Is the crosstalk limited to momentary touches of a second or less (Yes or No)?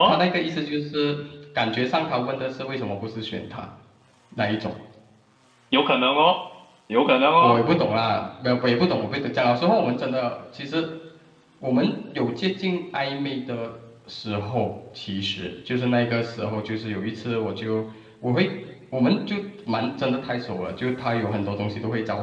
Yes